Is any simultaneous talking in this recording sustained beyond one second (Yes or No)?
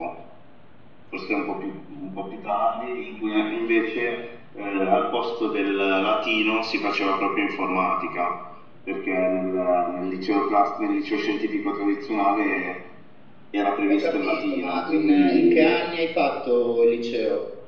Yes